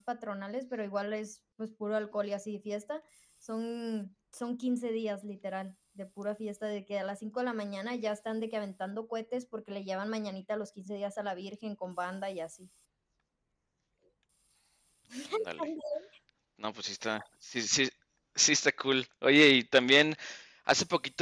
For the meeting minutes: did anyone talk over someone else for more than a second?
No

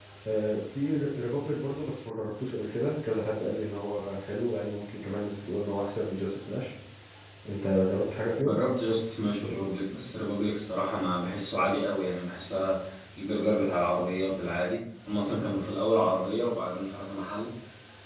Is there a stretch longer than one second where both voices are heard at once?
No

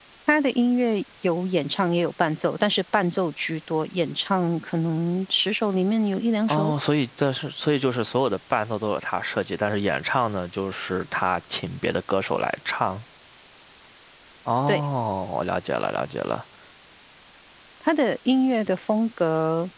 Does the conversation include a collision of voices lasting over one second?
No

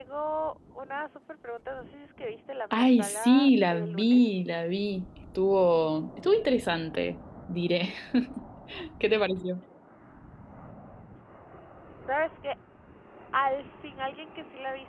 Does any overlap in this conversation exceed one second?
Yes, from 2.7 s

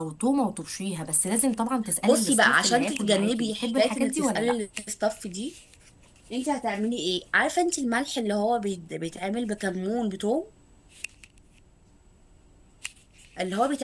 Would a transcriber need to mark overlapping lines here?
Yes, from 2.0 s

